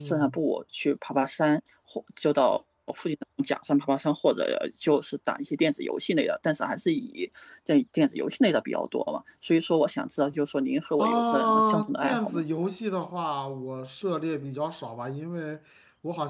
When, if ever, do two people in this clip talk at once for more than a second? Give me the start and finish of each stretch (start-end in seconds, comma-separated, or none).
11.0-12.4